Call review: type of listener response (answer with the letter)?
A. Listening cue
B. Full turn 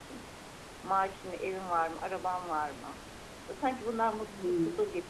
B